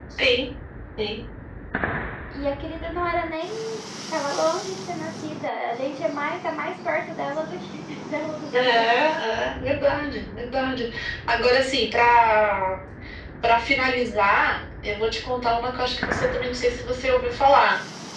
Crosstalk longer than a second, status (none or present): none